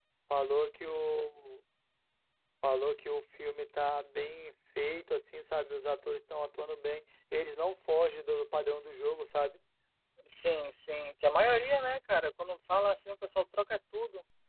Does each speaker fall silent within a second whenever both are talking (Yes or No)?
Yes